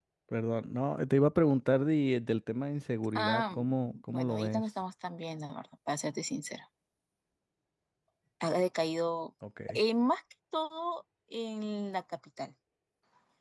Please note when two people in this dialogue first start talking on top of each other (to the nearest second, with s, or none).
3 s